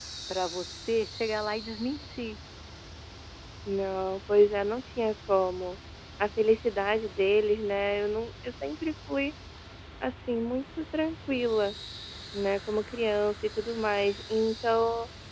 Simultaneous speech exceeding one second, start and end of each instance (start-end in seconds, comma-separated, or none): none